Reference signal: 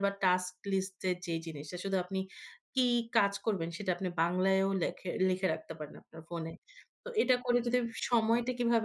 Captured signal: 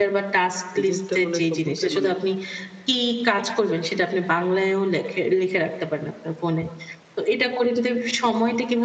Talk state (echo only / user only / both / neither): both